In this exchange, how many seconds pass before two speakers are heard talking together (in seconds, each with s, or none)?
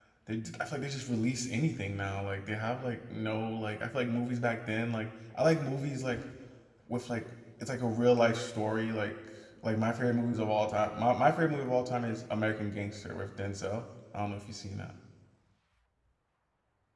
none